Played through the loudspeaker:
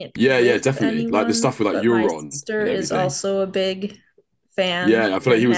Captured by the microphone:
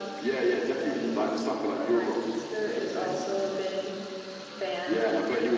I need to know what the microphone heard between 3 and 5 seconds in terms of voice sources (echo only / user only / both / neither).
echo only